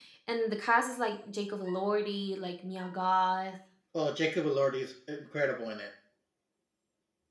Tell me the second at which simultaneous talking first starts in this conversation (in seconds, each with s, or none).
none